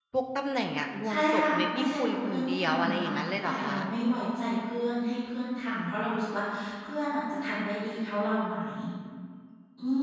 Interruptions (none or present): present